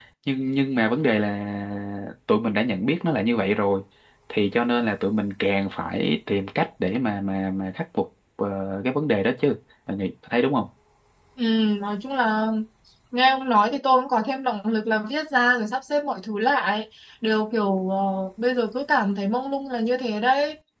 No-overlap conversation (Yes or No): Yes